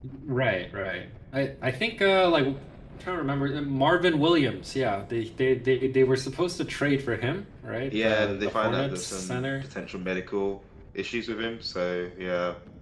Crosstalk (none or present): present